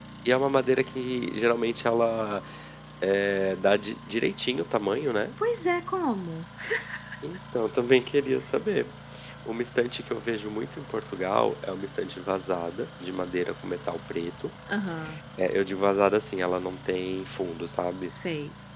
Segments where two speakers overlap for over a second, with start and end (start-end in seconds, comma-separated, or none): none